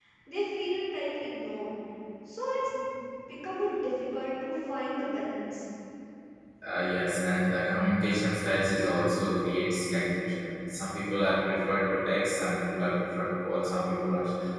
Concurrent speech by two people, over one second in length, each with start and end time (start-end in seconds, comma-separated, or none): none